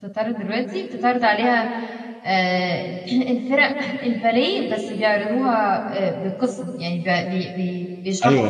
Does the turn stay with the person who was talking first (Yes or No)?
No